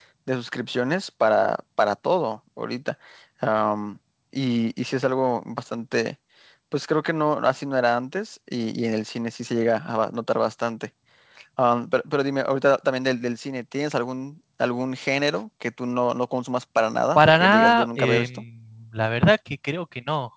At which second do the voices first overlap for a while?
17.1 s

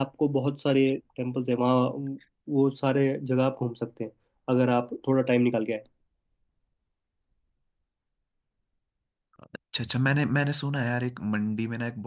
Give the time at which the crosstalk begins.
none

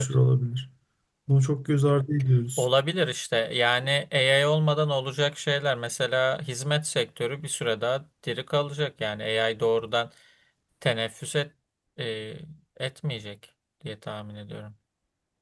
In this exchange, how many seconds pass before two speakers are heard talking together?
none

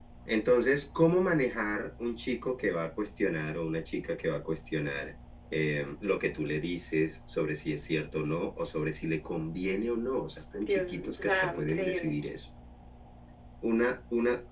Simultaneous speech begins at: 10.5 s

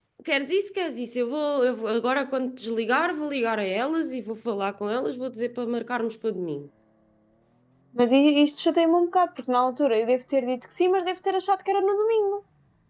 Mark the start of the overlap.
none

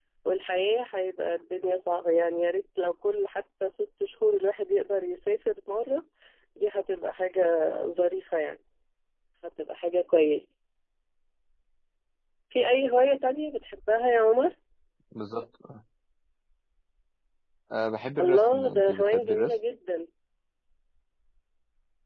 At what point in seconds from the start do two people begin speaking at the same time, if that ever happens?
18.2 s

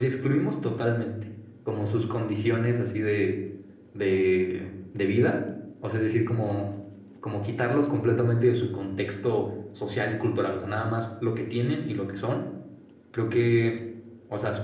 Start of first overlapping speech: none

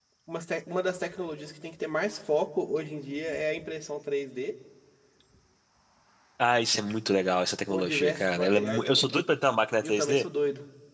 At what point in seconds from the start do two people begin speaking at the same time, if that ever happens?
7.7 s

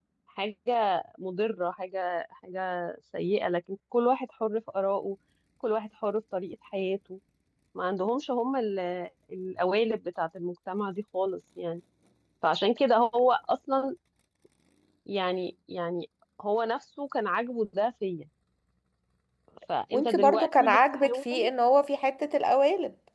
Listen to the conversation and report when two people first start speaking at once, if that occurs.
19.9 s

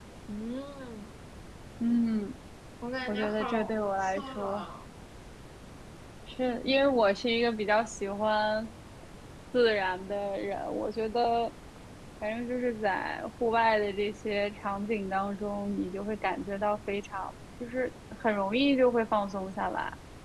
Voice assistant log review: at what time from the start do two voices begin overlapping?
3.1 s

